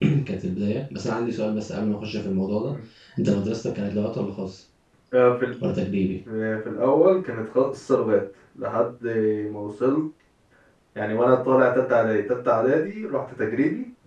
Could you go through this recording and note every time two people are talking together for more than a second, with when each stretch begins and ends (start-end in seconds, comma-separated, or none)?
none